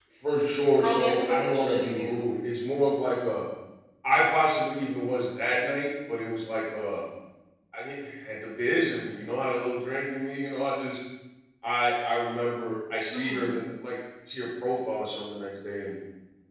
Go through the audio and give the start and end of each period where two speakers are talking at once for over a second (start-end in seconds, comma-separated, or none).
0.8-2.2